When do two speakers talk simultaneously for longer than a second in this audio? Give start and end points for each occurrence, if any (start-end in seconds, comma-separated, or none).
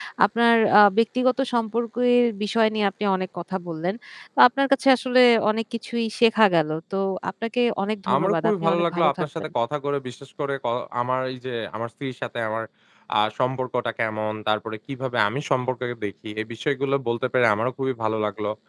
8.1-9.5